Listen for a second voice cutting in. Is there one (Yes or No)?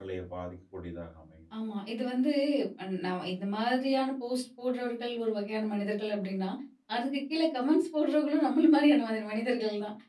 No